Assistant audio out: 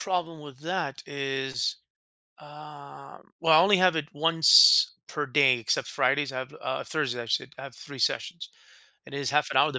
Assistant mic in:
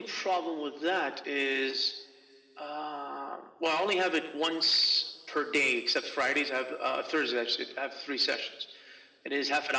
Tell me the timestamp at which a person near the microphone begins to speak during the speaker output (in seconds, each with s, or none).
none